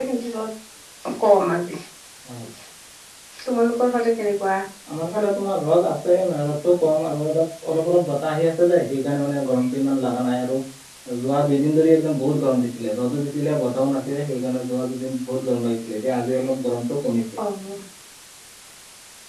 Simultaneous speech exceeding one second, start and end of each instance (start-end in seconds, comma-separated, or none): none